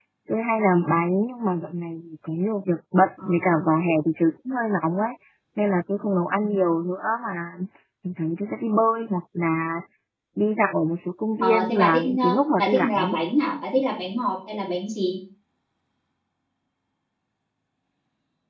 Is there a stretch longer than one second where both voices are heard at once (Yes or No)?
Yes